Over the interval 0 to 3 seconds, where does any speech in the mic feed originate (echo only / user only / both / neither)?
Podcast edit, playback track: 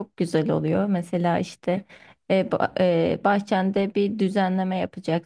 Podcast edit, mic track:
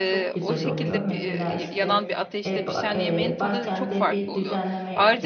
both